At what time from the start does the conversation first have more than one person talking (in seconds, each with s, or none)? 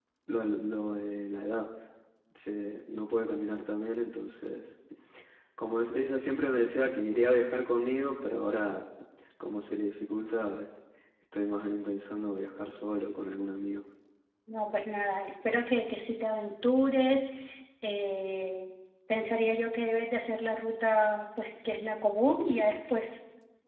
none